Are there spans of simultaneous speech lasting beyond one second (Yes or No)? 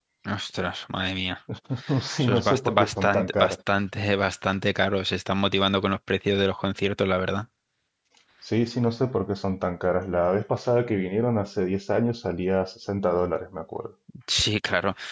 Yes